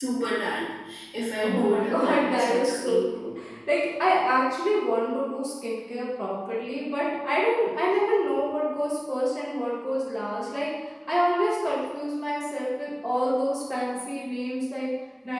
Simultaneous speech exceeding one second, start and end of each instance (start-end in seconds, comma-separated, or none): 1.4-3.0